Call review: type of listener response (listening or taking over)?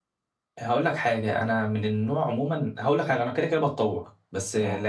listening